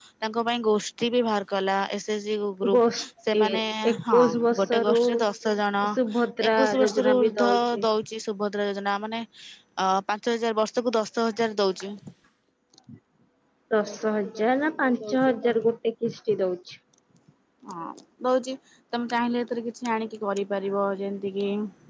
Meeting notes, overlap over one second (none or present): present